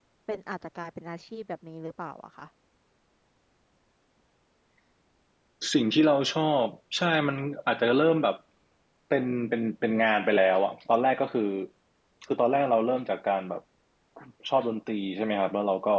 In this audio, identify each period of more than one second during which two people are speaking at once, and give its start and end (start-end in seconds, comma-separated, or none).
none